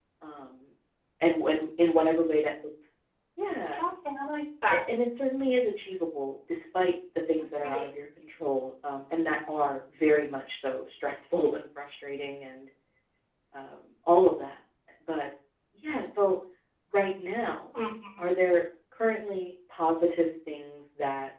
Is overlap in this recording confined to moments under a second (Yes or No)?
Yes